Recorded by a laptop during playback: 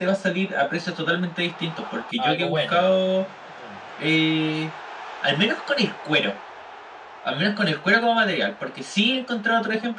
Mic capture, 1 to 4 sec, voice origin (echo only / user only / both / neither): both